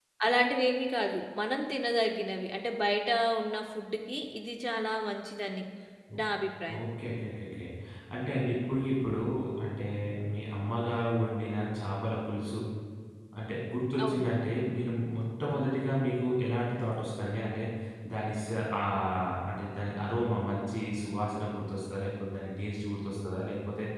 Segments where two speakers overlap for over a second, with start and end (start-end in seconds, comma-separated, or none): none